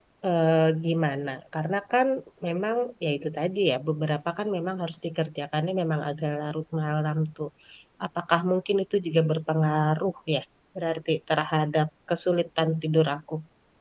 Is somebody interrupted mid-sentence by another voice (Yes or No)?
No